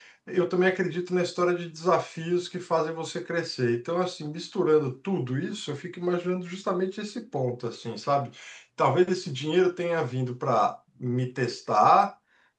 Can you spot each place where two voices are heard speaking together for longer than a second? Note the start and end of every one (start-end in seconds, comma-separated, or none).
none